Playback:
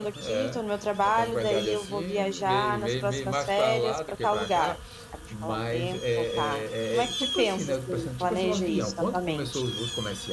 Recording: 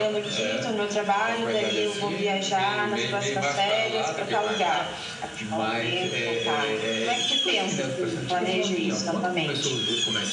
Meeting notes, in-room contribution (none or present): none